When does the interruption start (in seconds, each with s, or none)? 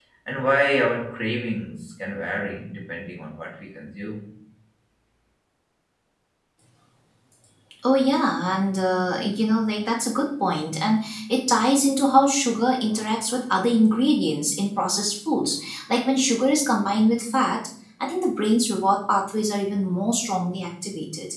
none